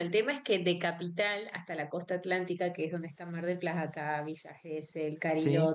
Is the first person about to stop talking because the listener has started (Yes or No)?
No